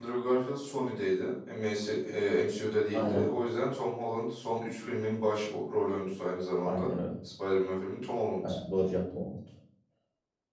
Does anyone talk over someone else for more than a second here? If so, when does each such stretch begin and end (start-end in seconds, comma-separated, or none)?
none